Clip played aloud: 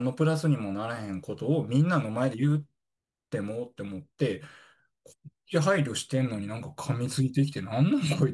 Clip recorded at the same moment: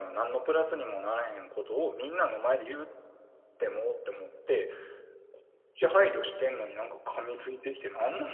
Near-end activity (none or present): none